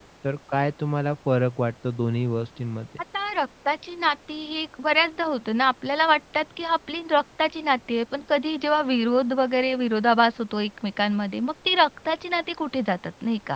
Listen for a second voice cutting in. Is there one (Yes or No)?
No